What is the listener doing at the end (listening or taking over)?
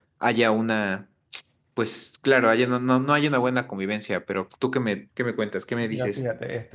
taking over